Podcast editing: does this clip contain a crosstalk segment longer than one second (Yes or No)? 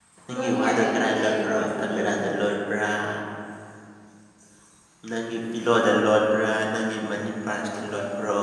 Yes